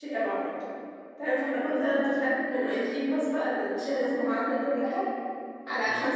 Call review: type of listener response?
listening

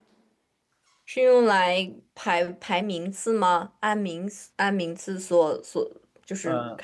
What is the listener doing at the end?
listening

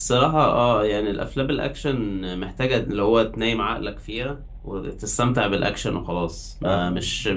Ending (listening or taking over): listening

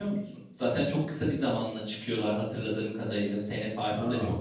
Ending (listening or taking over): listening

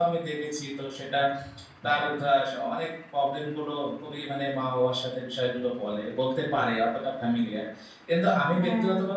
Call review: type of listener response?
listening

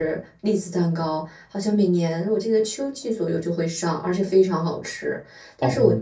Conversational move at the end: listening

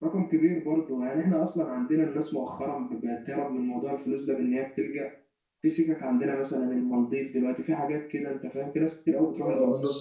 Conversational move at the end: taking over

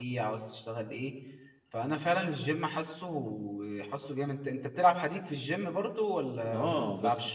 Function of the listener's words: taking over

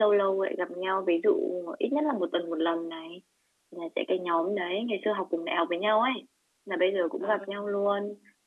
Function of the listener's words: listening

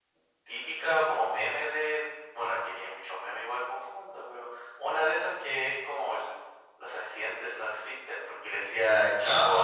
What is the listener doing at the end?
listening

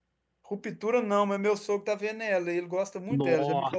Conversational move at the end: taking over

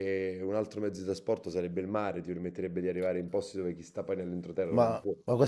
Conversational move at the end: taking over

